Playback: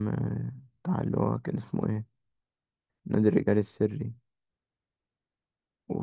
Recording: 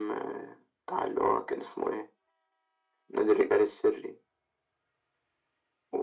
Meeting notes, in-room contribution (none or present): none